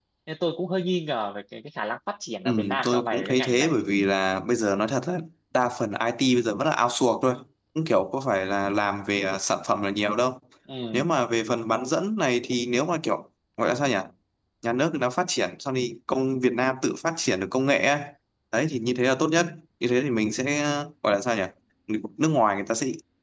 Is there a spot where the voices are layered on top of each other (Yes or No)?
Yes